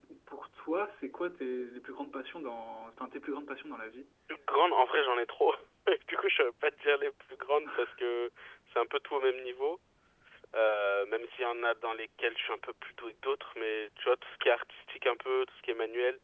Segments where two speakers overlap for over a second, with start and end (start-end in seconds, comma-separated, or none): none